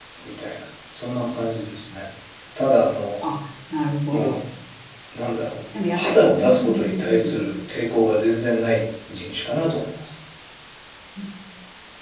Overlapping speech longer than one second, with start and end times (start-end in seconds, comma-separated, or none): 5.9-7.3